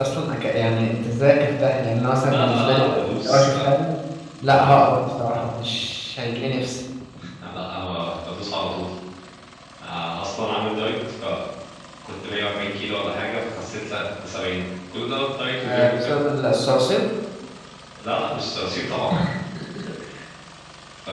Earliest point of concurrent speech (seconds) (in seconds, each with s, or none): 2.3 s